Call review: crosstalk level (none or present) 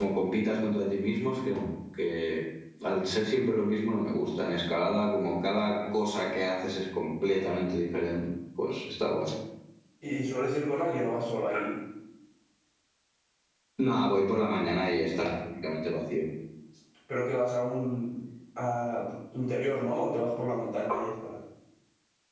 none